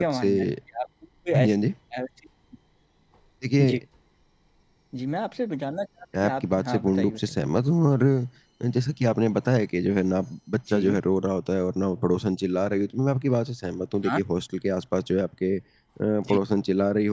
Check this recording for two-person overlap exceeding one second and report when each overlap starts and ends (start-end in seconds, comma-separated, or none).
6.2-7.4